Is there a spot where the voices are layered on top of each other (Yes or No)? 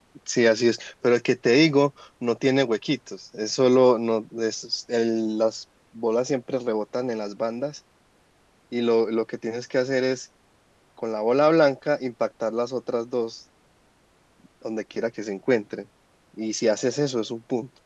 No